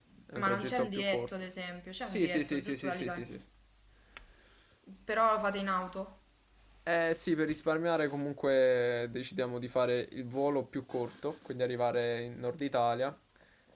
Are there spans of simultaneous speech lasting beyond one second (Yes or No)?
Yes